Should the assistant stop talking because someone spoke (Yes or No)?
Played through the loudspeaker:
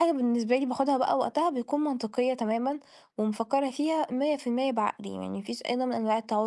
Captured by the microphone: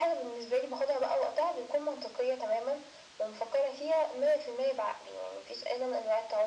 No